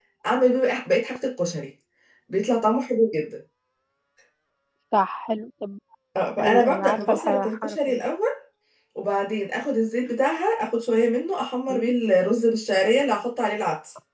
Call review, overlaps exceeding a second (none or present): present